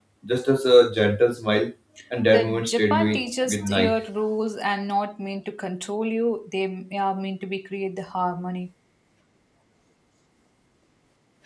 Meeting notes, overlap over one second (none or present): present